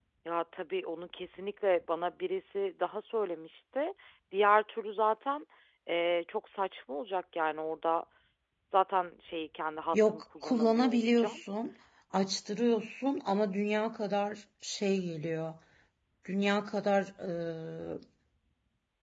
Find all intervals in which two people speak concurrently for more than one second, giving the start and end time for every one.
9.9-11.4

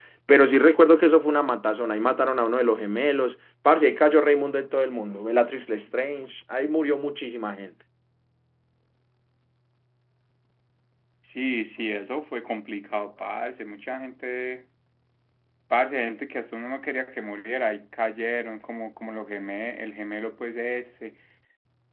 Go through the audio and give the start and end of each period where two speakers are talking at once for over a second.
none

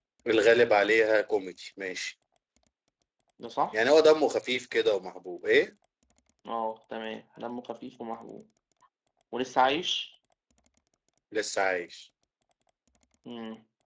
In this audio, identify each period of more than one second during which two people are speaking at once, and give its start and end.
none

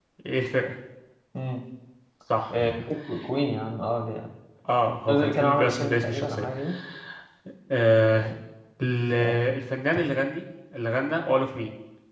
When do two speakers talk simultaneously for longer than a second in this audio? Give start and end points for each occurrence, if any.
5.1-6.5

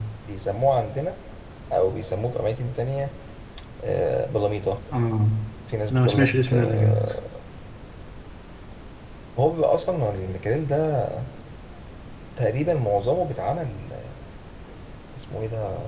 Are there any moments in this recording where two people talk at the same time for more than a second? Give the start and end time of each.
5.9-7.1

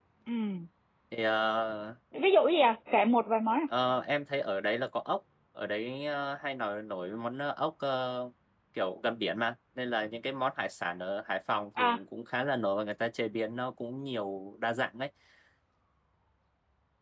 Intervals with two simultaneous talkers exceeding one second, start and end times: none

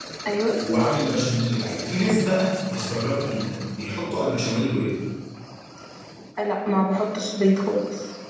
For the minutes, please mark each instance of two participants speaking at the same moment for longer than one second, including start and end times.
none

